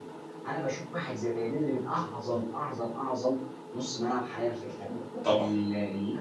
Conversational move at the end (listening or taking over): listening